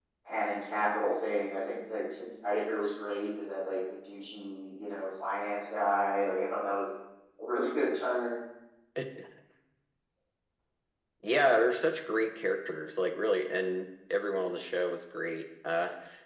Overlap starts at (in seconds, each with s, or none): none